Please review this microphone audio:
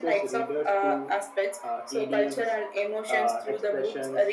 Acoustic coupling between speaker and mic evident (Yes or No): Yes